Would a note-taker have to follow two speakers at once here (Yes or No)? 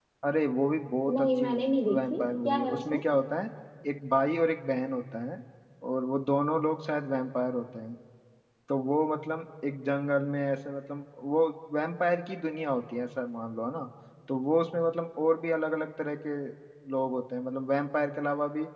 Yes